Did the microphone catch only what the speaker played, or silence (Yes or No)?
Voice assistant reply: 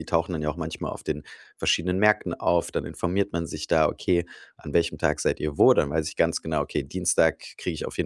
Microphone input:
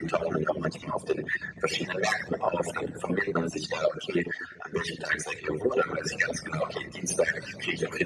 Yes